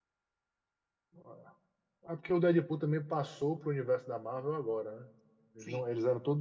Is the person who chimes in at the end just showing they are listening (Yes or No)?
Yes